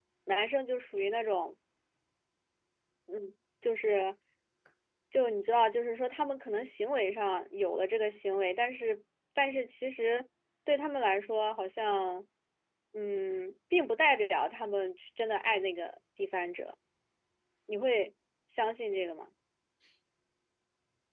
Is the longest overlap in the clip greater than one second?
No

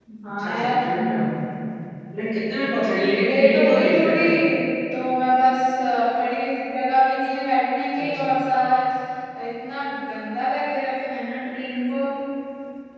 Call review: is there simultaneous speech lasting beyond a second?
Yes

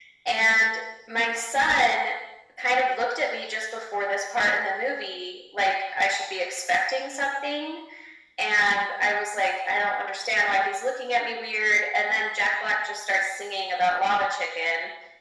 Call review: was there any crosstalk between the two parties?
No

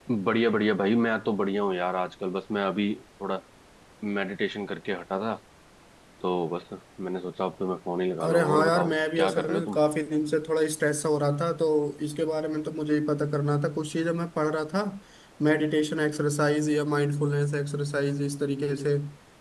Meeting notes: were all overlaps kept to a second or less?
No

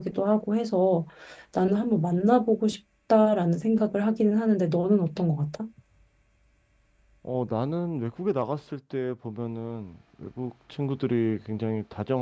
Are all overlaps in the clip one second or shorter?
Yes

